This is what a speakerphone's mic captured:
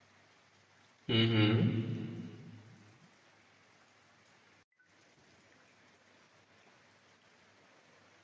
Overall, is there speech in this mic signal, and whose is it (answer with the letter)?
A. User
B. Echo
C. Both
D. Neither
A